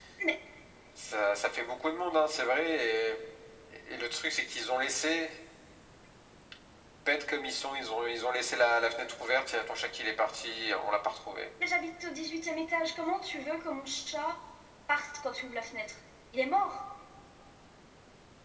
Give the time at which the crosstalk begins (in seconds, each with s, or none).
none